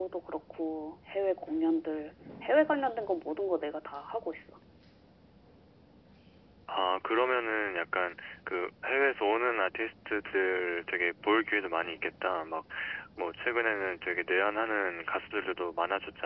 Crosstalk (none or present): none